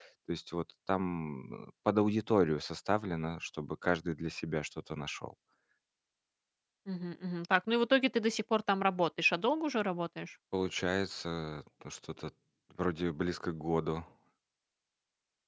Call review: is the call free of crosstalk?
Yes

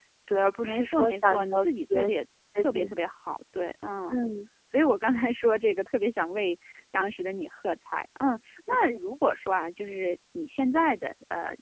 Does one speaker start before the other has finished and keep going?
Yes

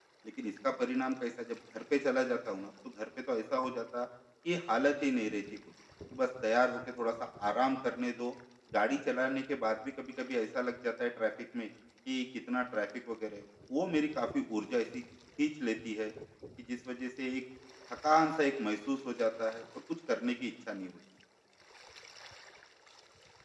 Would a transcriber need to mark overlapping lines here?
No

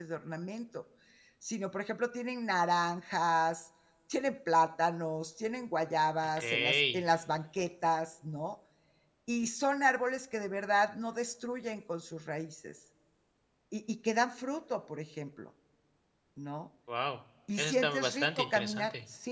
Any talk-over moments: Yes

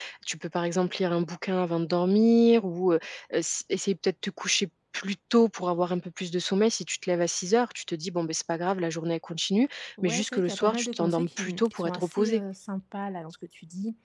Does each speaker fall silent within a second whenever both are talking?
No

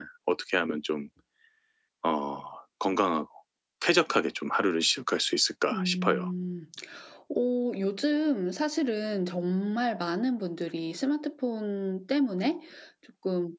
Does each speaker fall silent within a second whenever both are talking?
Yes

